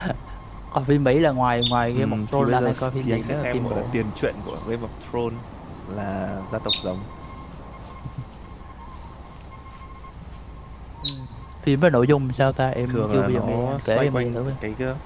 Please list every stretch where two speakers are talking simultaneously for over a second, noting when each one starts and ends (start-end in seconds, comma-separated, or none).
1.9-4.0, 12.9-14.5